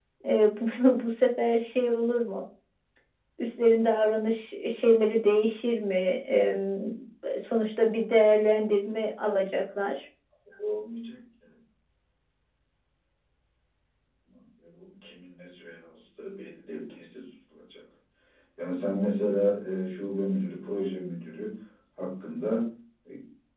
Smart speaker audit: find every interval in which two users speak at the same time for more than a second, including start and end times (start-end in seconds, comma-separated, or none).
none